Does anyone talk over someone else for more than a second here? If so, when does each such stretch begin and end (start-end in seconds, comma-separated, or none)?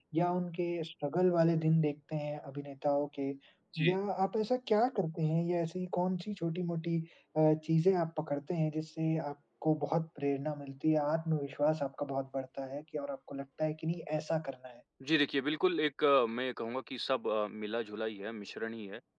none